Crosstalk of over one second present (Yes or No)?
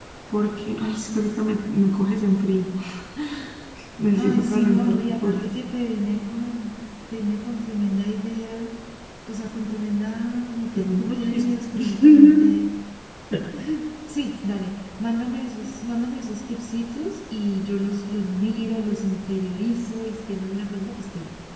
Yes